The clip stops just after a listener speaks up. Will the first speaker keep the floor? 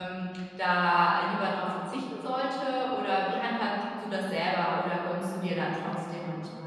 No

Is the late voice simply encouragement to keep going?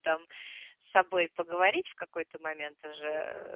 No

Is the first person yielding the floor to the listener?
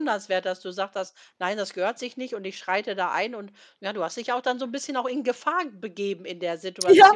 Yes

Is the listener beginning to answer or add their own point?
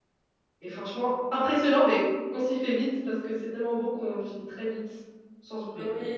Yes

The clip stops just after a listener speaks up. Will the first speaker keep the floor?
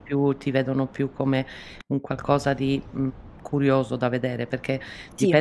Yes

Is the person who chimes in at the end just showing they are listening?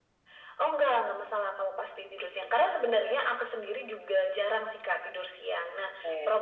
Yes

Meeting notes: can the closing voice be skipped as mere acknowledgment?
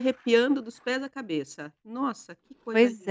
No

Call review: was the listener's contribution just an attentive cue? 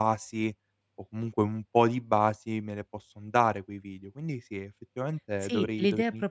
No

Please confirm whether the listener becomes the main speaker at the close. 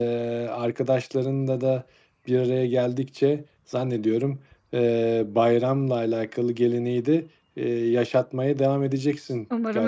Yes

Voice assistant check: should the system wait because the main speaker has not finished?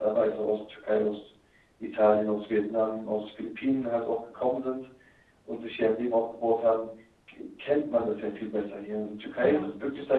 Yes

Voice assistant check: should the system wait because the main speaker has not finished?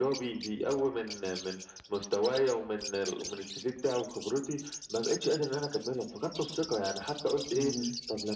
Yes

